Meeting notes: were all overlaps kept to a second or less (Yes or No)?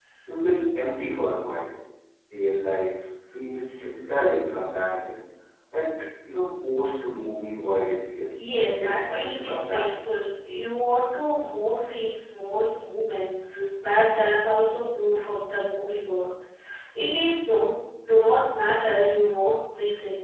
No